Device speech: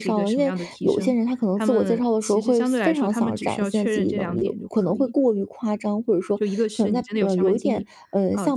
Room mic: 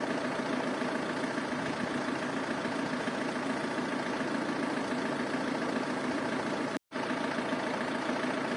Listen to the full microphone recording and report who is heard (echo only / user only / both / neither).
neither